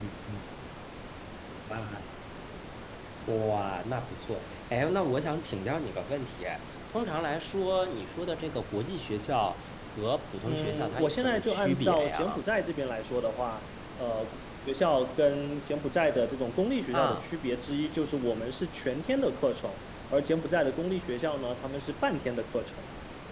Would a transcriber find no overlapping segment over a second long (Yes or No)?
No